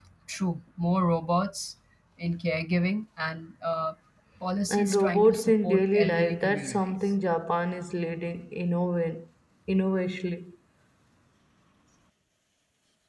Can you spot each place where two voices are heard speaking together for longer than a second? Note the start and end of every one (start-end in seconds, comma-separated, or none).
4.7-6.9